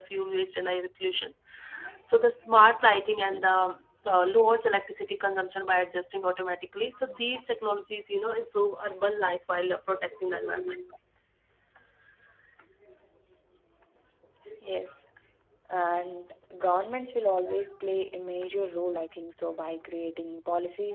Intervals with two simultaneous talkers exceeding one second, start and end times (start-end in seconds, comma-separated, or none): none